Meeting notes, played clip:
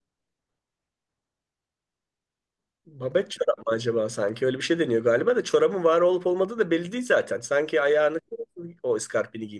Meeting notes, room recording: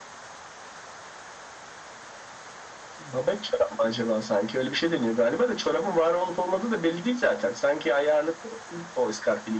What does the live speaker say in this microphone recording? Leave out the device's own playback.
none

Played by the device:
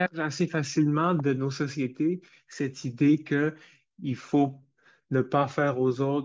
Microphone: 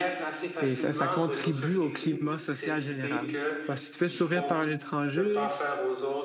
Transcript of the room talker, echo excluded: et ça, ça contribue au climat social général. Parce que si tu fais sourire par un étranger,

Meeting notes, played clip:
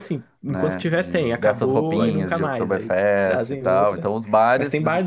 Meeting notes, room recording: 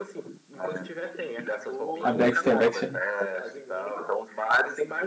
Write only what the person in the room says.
A Beck's tem a Beck's já.

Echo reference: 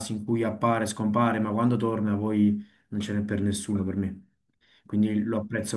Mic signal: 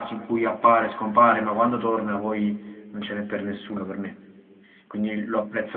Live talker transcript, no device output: none

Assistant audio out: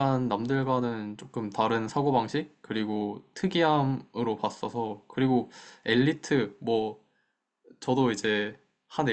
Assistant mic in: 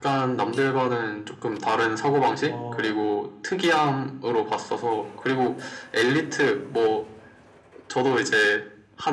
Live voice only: 어,

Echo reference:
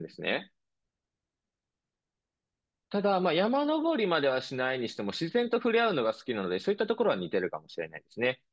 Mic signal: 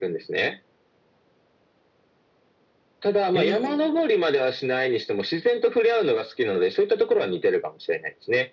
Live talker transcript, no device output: えー

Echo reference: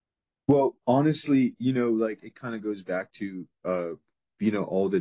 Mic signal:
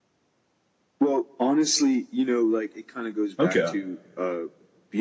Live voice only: Okay.

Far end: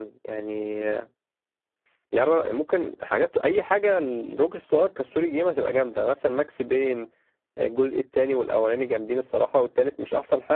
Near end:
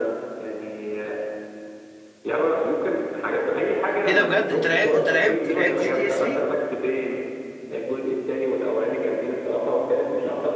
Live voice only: ايه ده بجد انت لعب... انت لعبت لعبت جي تي اس 3

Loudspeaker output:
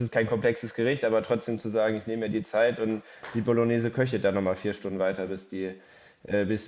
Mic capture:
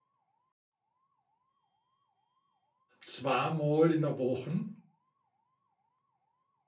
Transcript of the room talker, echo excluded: zweimal in der Woche

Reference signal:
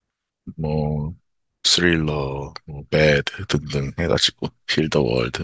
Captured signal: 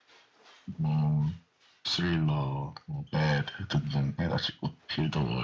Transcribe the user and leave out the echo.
none

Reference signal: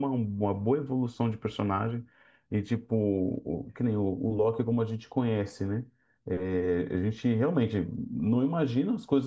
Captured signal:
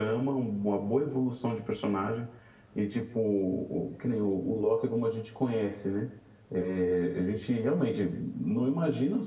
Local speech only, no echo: none

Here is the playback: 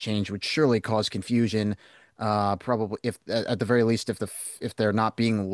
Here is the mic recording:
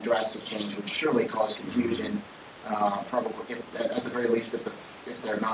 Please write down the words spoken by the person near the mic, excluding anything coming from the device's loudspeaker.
mm.

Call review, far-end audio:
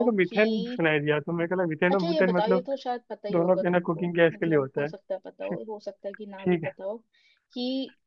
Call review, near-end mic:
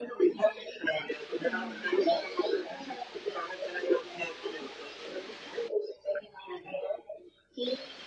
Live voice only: हाँ

